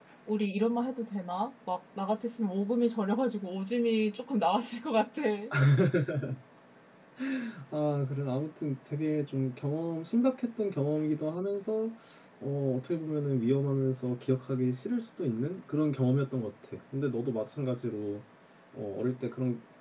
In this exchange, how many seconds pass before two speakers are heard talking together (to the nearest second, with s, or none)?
none